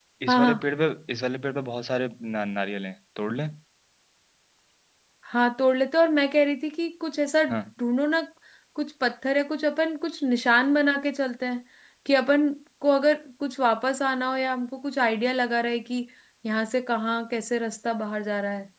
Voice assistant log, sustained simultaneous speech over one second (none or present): none